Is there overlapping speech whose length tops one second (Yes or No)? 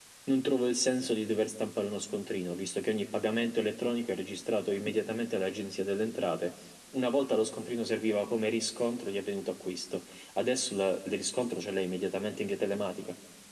No